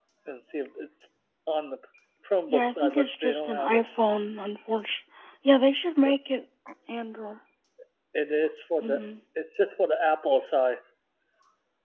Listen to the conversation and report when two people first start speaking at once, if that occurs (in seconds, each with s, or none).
2.5 s